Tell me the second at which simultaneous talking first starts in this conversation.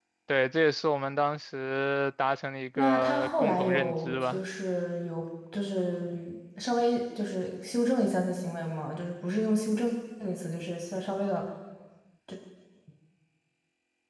3 s

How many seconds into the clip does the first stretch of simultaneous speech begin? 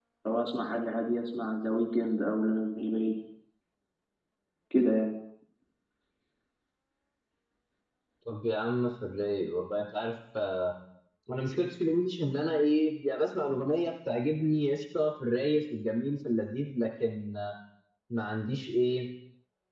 none

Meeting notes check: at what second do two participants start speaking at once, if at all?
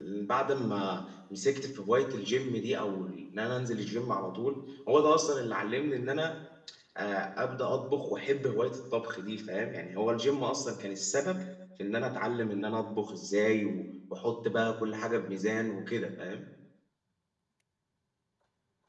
none

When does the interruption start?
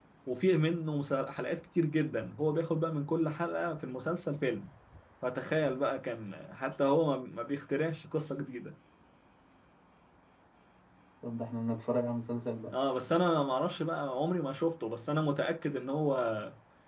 none

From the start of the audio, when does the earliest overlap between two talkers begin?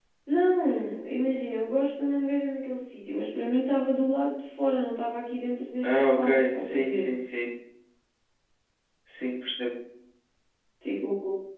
6 s

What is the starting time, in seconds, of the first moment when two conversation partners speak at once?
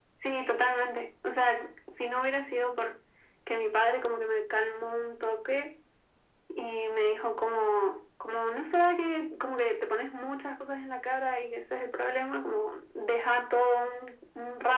none

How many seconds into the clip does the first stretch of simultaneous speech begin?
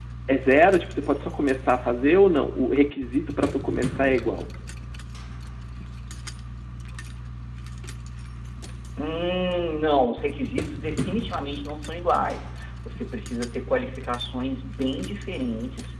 none

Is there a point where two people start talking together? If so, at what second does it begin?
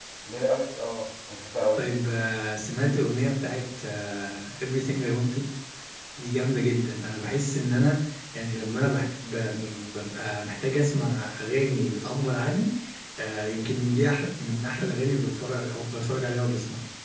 none

